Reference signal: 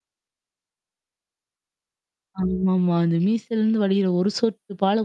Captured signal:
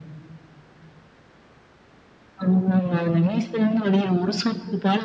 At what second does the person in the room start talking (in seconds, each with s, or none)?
none